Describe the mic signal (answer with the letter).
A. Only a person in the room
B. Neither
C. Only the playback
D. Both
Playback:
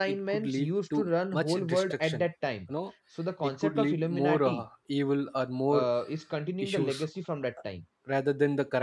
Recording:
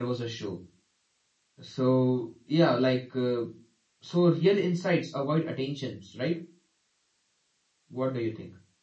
A